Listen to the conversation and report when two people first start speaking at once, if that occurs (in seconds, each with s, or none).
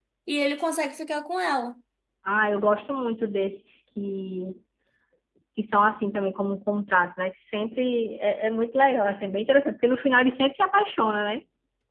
none